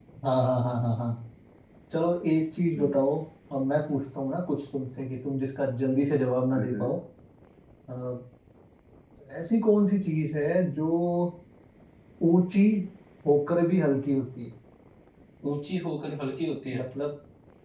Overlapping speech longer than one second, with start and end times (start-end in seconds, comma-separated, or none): none